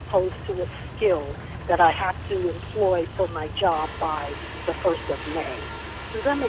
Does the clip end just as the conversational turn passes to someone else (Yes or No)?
Yes